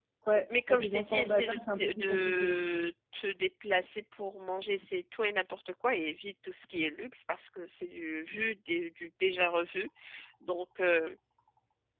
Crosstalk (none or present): present